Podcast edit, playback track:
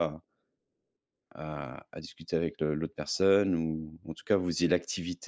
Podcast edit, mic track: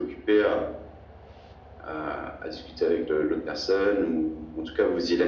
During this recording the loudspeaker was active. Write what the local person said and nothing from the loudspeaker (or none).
none